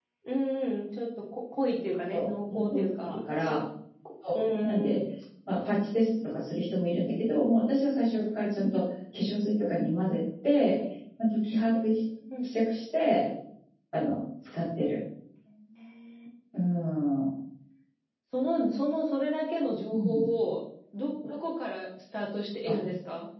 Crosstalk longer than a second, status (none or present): present